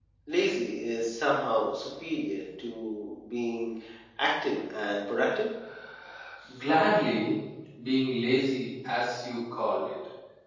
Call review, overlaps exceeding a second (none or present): none